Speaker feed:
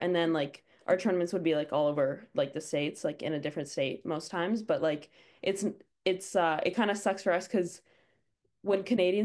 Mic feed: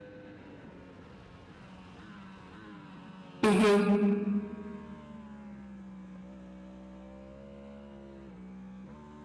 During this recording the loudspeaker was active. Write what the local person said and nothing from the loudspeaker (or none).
hmm